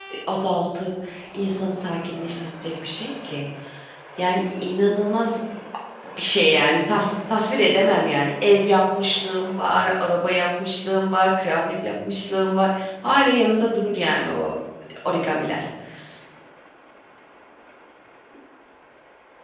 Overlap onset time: none

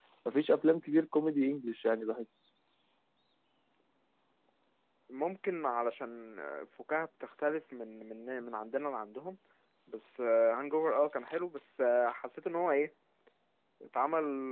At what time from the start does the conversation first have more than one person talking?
none

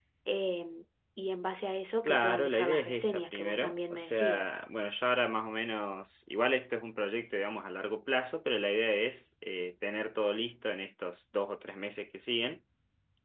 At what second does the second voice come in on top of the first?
2.0 s

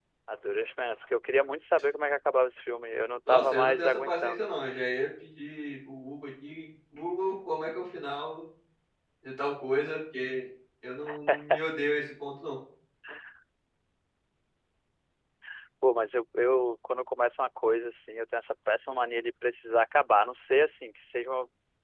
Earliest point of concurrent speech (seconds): 3.3 s

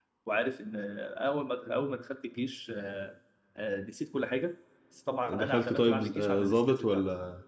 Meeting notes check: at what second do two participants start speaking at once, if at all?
5.3 s

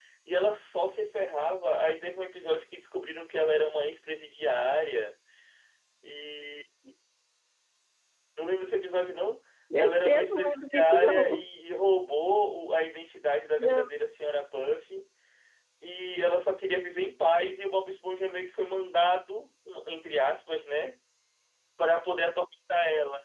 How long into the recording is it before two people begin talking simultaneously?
9.8 s

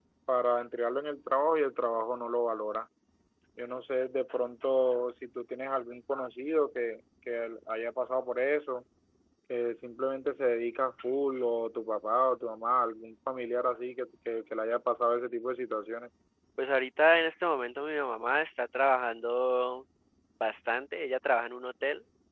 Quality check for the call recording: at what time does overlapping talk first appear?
none

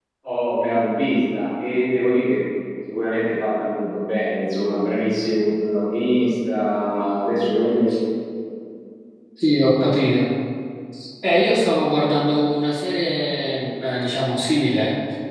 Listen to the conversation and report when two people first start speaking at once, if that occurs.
none

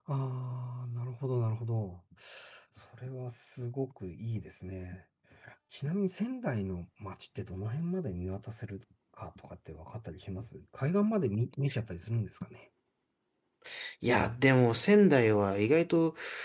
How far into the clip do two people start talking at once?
none

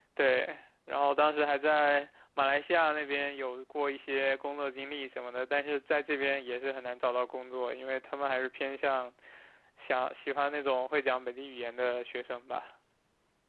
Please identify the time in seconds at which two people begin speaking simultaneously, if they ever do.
none

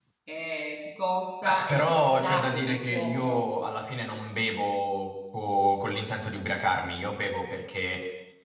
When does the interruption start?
1.4 s

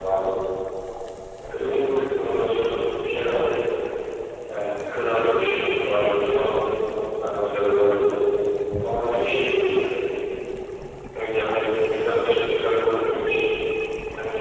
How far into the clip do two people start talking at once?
none

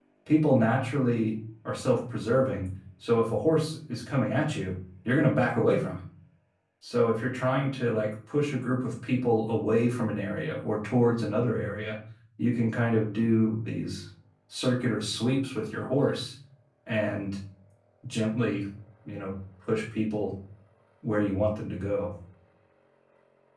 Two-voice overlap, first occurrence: none

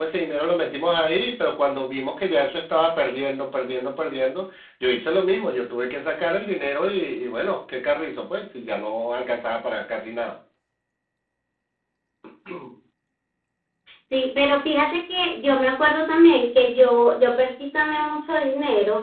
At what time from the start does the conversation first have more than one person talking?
none

